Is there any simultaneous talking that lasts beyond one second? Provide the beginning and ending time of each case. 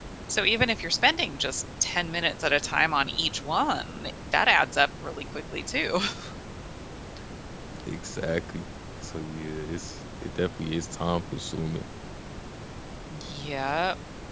none

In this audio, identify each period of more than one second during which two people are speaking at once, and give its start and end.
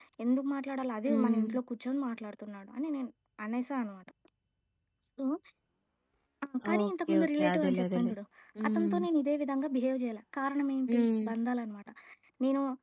6.8-8.1

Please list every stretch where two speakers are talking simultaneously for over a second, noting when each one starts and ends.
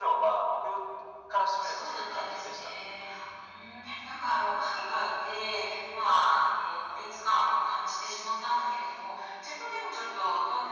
1.5-2.8

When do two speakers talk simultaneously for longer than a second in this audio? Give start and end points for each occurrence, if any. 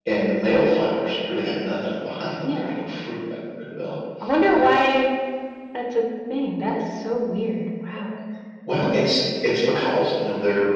none

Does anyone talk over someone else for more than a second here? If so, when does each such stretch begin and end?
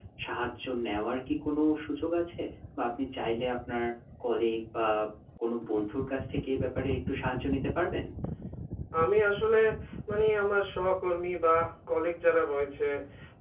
none

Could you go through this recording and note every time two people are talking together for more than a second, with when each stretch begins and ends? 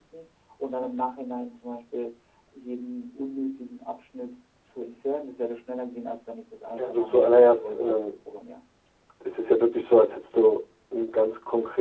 6.7-8.0

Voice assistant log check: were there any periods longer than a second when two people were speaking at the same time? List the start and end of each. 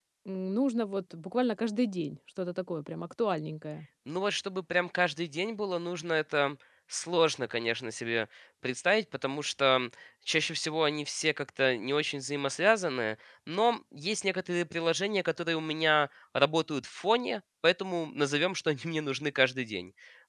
none

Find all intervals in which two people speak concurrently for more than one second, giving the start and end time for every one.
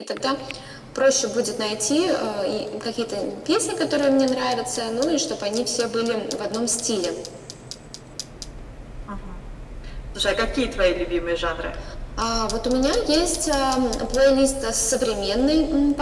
none

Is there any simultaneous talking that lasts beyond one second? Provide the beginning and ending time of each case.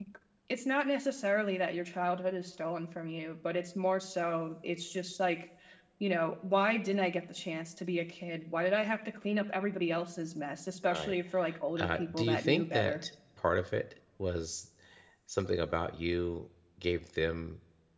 11.8-13.0

